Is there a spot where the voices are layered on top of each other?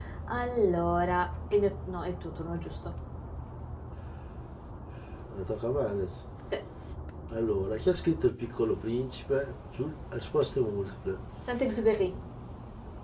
No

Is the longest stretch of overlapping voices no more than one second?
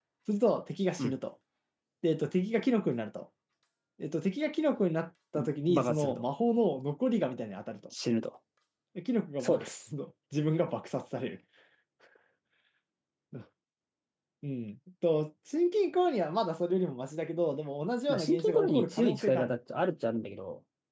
No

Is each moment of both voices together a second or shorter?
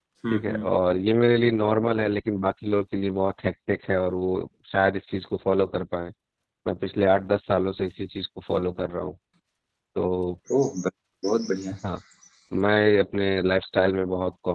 Yes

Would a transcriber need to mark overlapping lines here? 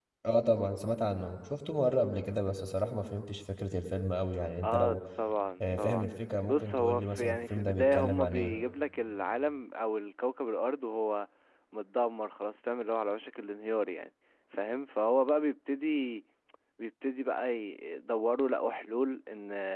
Yes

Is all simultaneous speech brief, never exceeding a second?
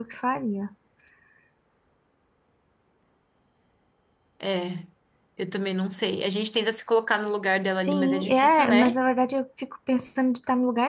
No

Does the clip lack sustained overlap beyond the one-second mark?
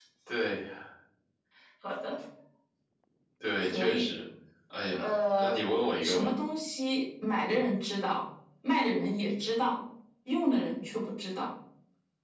Yes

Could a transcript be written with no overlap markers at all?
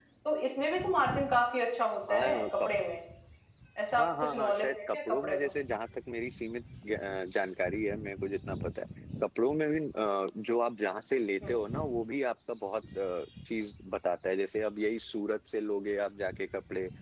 No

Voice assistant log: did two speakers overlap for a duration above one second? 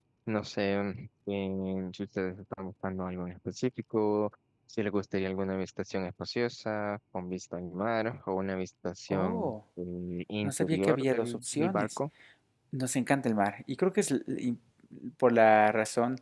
Yes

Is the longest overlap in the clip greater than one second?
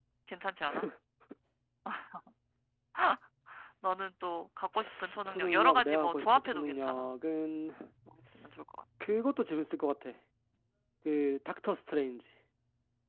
Yes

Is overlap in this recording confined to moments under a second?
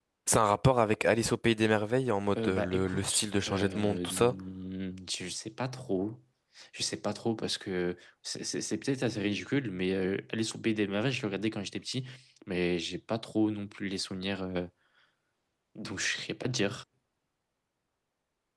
No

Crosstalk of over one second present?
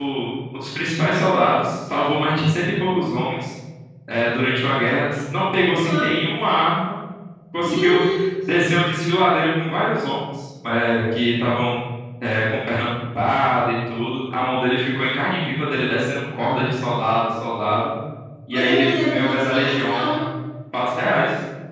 Yes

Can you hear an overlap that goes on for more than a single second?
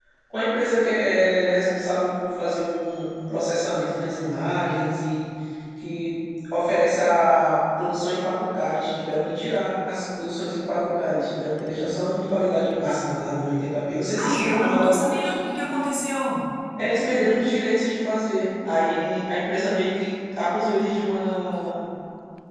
Yes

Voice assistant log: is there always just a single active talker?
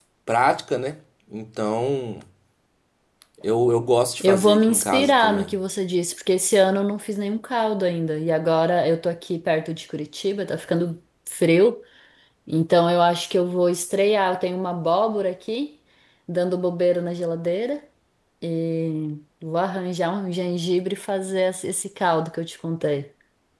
No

